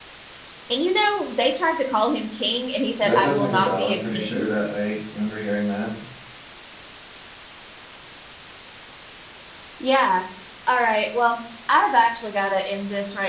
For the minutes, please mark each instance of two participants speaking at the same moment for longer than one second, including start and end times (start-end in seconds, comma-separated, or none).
3.0-4.5